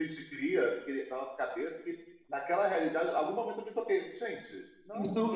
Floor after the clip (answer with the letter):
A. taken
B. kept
A